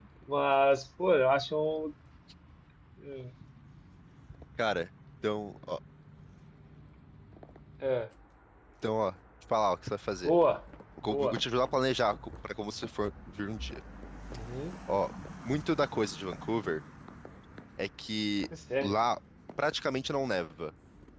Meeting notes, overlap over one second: none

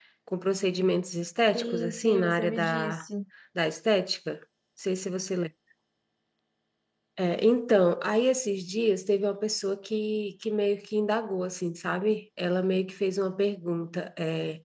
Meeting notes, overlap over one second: present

